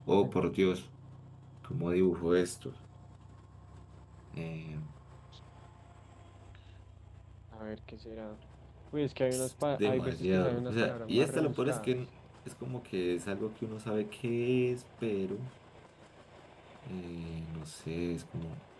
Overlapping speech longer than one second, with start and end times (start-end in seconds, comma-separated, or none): 9.7-11.9